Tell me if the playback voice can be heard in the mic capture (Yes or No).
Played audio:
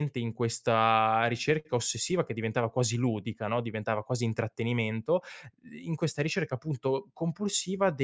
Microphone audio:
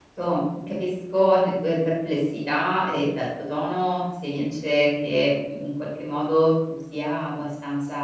No